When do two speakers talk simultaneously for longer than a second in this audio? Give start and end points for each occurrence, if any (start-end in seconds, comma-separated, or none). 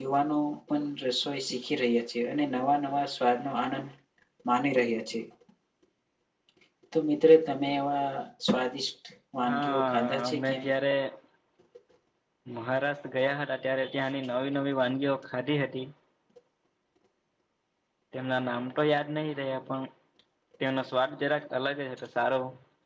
9.4-10.7